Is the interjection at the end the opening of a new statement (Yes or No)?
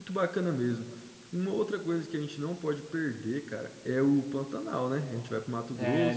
No